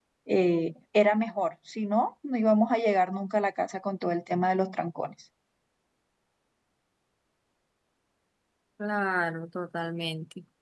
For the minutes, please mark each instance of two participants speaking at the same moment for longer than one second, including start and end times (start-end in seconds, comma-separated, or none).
none